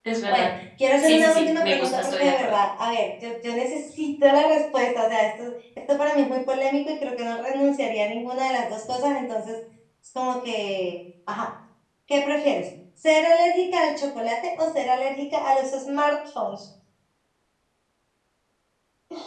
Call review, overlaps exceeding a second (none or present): present